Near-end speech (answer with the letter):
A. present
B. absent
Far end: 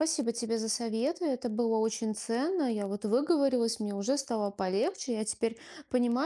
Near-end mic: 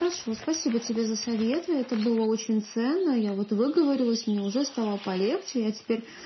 B